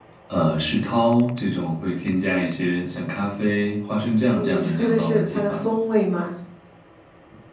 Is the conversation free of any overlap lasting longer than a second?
No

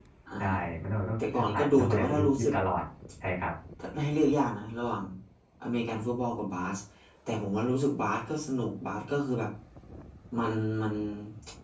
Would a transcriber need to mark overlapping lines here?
Yes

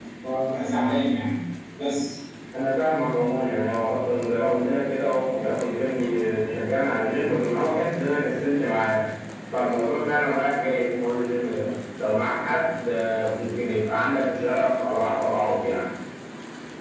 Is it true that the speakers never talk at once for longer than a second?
Yes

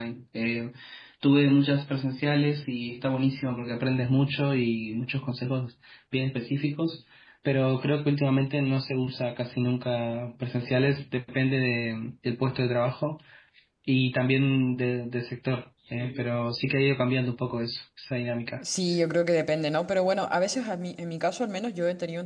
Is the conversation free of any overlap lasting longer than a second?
Yes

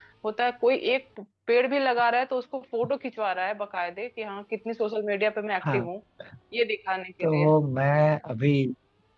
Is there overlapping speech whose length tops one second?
No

